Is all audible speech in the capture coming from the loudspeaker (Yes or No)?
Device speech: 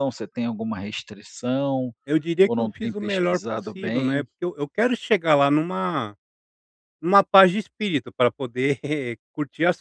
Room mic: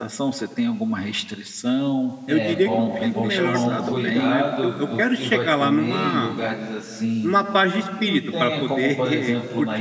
No